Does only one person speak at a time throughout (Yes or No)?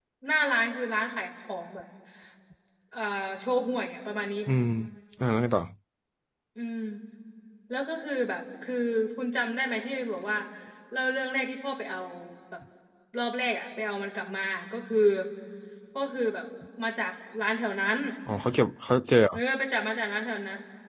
Yes